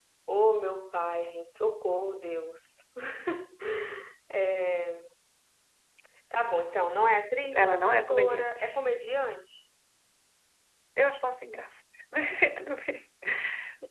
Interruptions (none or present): present